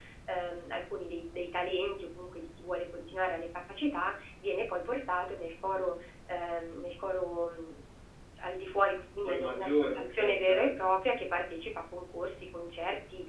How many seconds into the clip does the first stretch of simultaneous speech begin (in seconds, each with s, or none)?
9.2 s